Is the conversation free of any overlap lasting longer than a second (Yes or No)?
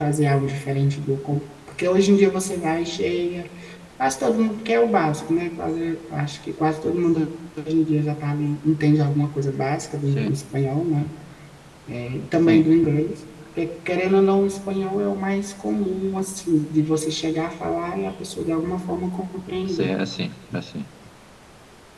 Yes